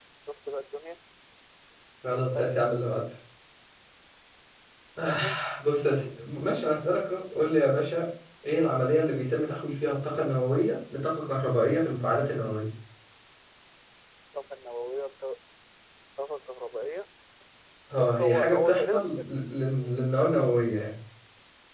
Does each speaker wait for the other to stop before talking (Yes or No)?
No